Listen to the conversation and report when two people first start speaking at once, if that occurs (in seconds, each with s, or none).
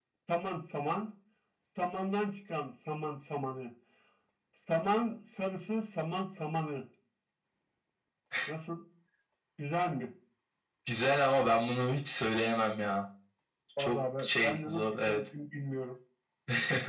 13.8 s